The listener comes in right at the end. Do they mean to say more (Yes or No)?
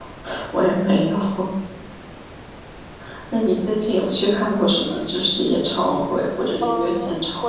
Yes